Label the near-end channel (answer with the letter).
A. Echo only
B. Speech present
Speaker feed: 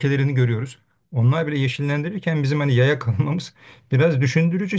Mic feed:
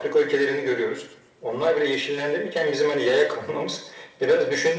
A